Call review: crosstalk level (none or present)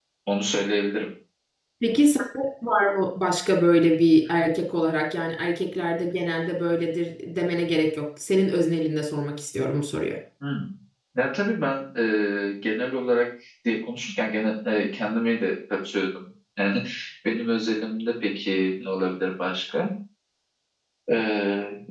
none